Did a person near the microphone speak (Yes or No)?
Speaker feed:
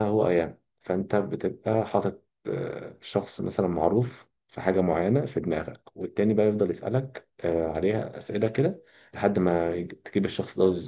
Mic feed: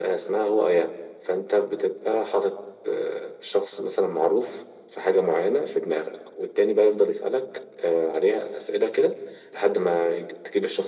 No